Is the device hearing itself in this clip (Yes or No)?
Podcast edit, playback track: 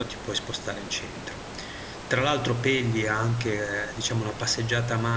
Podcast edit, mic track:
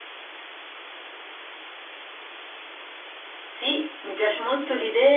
No